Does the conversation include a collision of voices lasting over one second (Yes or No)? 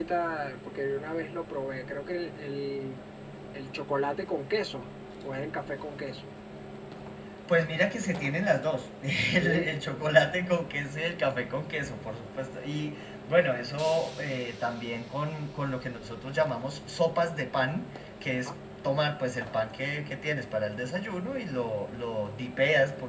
No